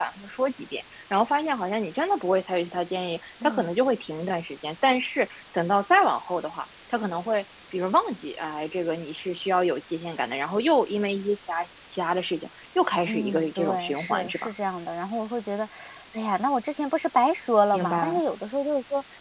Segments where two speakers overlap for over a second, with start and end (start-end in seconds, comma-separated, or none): 13.1-14.5